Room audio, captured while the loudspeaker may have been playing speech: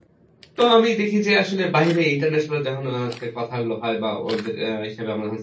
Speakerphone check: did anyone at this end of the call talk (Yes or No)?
Yes